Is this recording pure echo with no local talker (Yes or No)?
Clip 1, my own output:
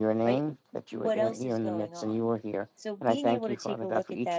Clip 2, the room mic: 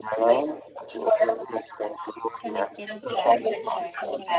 No